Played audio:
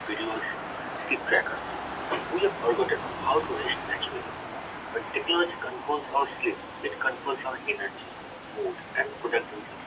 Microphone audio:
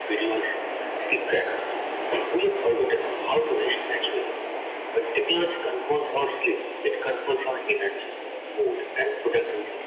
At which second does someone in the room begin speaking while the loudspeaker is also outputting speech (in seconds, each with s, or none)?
none